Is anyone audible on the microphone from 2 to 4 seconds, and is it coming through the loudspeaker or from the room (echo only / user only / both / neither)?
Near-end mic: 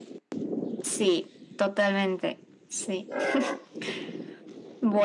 echo only